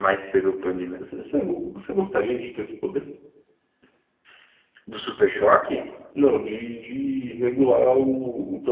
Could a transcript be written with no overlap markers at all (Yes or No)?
Yes